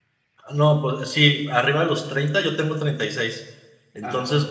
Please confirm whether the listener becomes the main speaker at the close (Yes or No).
No